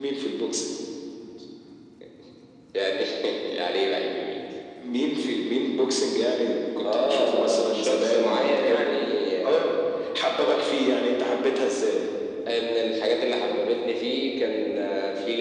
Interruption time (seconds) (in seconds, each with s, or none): 6.8 s